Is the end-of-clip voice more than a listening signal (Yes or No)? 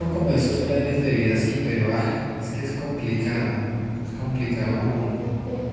Yes